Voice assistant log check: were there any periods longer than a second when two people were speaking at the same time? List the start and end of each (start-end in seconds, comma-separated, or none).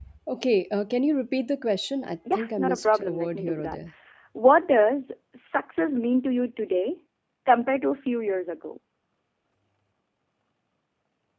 2.3-3.8